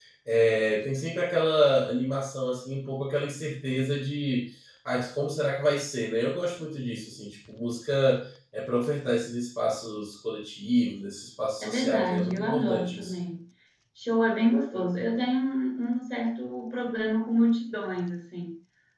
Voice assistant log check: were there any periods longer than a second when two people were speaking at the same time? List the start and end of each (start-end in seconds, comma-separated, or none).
11.6-13.1